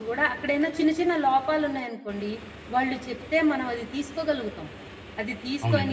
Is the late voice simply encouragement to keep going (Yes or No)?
Yes